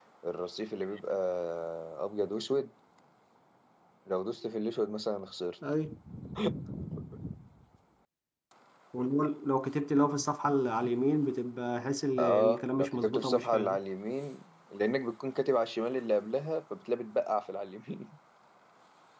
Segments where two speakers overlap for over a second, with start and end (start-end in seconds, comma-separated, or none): 12.2-13.8